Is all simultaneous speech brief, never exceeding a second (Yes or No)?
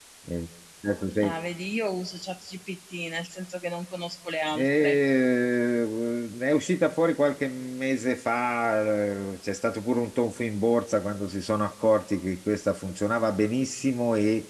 Yes